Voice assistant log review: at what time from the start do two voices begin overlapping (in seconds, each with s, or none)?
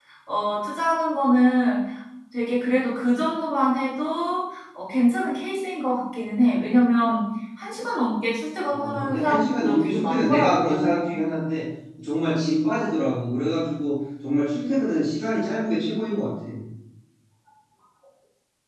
8.7 s